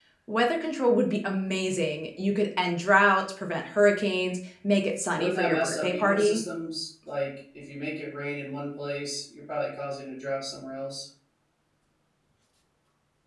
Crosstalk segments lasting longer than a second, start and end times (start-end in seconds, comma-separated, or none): 5.1-6.4